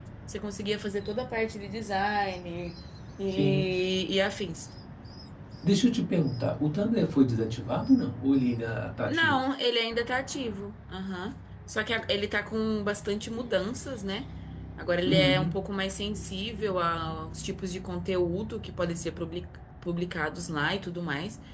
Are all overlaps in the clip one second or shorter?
Yes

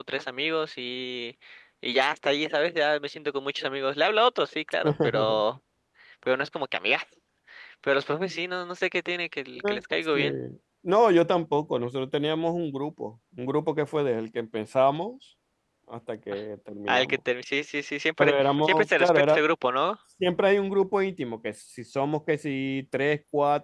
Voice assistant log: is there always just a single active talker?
No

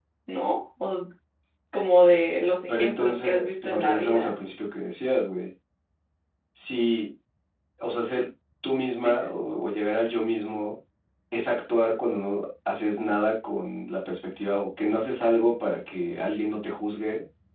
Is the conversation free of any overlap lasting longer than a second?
No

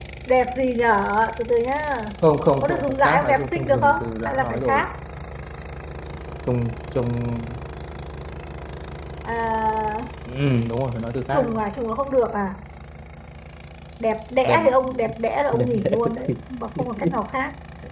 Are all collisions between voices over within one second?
No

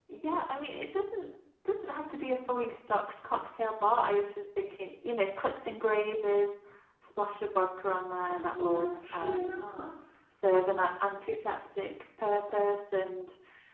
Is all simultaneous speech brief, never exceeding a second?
No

